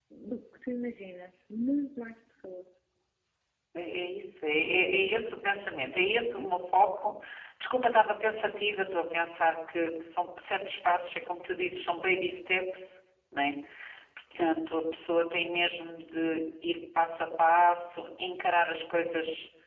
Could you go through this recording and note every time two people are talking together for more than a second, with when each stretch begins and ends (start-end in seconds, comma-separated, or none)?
none